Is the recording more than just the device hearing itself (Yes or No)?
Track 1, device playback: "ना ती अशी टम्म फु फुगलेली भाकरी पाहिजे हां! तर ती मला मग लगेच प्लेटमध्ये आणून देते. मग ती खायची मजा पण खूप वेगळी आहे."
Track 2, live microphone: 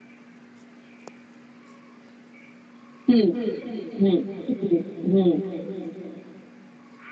Yes